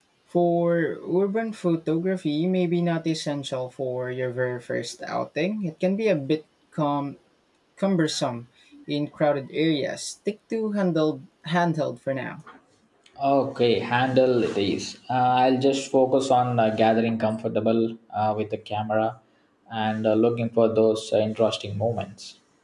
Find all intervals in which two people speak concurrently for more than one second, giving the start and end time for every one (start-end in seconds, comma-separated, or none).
none